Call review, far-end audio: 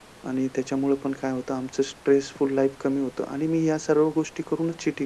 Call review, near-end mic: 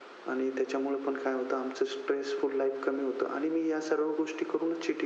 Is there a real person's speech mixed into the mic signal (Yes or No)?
No